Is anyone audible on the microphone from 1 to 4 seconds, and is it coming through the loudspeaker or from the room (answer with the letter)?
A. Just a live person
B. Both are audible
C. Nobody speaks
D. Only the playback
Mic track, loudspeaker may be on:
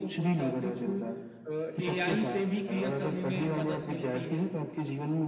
D